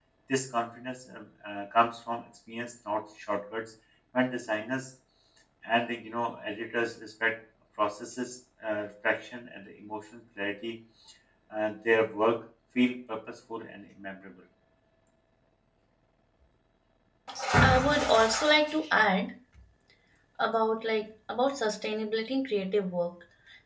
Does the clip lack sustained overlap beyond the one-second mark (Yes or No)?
Yes